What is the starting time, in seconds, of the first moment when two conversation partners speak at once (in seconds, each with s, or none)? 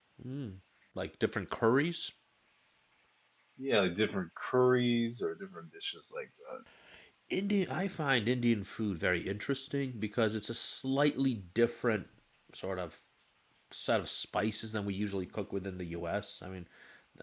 none